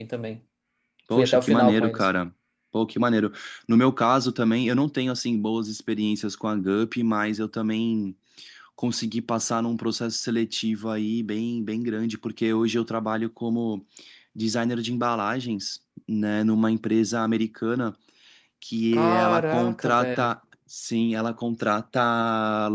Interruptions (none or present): present